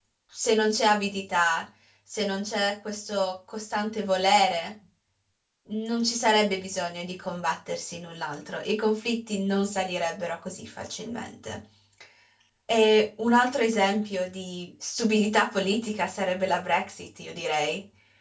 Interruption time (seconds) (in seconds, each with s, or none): none